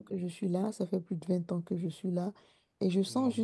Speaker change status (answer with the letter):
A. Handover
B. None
B